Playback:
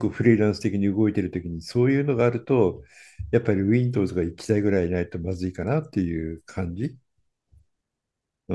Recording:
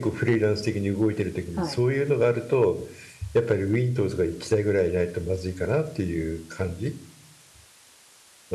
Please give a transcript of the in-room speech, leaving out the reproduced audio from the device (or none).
はい。